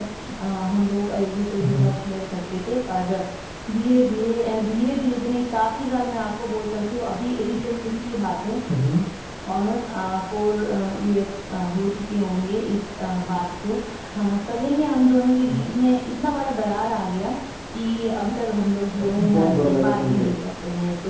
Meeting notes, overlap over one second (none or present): present